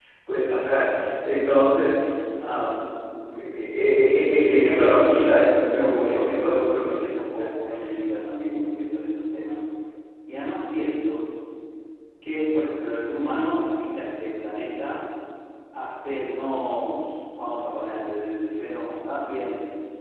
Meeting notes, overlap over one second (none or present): present